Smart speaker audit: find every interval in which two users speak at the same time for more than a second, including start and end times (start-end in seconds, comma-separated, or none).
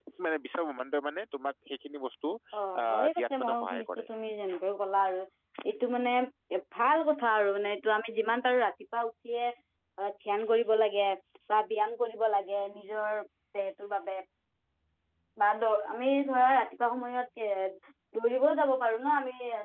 2.8-4.0